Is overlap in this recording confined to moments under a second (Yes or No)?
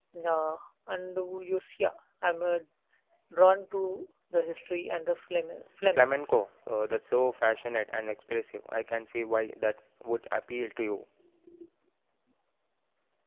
Yes